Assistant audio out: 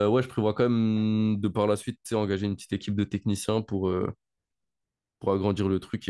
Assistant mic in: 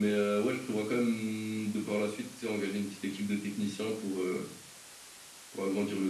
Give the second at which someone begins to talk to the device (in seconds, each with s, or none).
none